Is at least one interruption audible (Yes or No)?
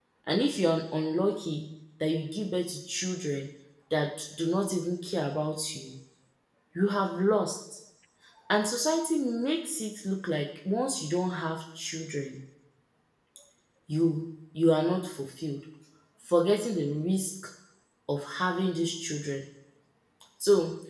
No